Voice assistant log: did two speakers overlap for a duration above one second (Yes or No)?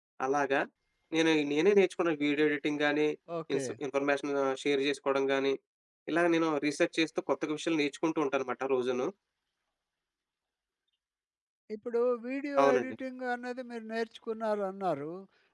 No